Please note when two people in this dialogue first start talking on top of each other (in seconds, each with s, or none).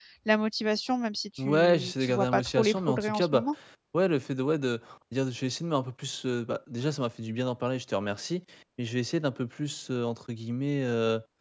1.4 s